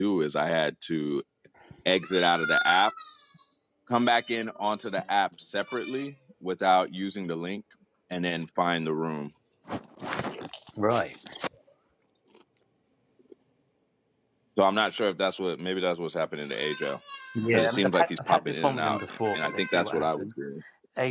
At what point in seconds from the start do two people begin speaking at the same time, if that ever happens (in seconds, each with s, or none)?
17.5 s